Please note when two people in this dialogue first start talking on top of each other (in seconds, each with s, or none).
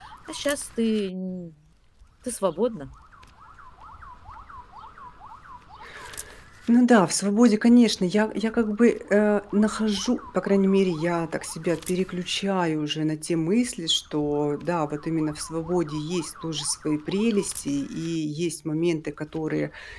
none